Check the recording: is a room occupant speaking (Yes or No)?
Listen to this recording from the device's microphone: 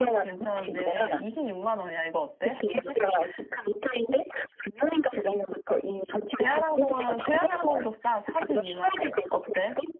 Yes